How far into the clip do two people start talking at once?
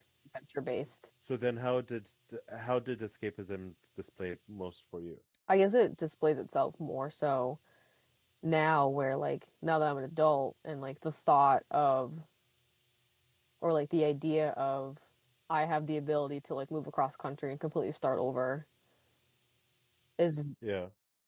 none

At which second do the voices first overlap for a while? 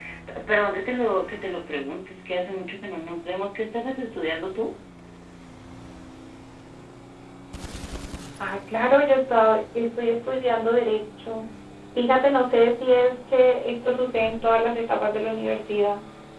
none

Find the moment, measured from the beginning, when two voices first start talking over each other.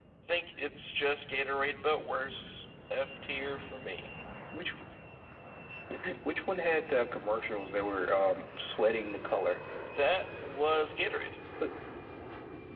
none

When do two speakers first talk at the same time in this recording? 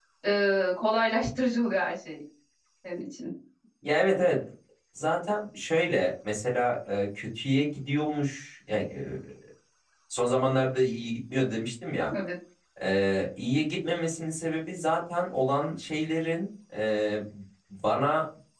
none

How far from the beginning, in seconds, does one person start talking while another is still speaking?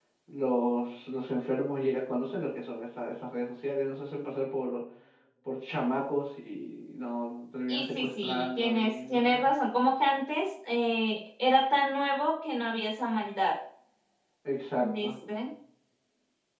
7.7 s

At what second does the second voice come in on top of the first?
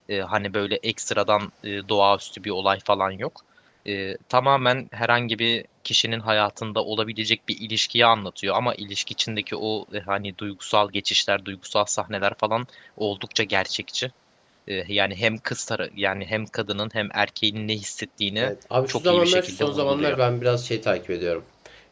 18.9 s

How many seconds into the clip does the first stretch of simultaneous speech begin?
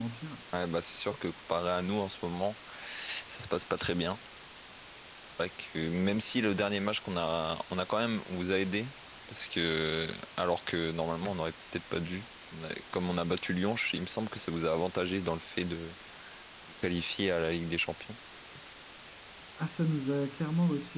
none

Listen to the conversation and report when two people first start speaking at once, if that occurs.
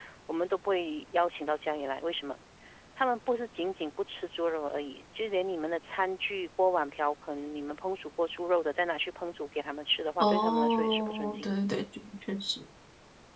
10.2 s

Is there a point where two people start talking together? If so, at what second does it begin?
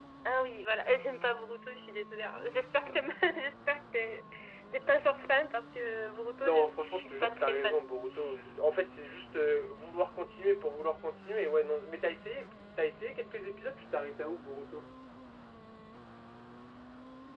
6.4 s

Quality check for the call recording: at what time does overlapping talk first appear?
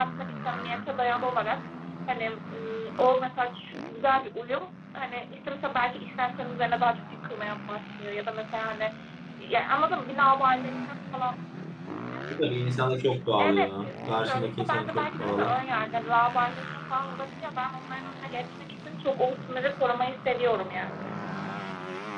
13.4 s

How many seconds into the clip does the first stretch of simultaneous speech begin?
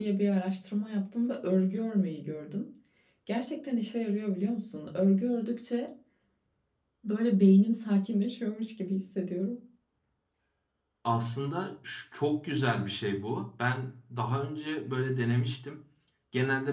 none

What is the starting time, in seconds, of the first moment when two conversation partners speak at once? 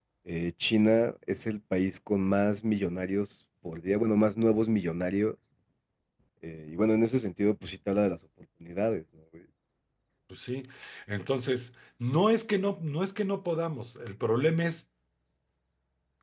none

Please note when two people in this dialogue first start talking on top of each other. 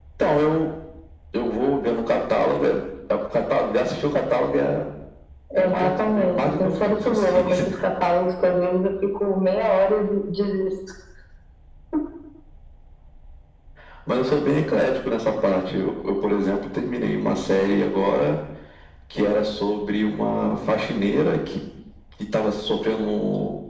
5.6 s

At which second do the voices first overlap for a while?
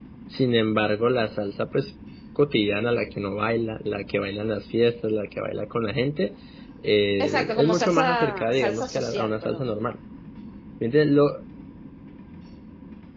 7.2 s

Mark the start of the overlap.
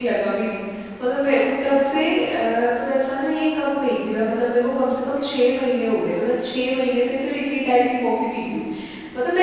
none

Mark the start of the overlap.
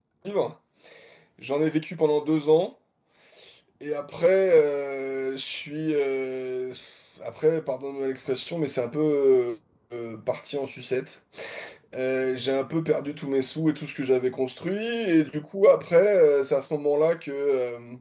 none

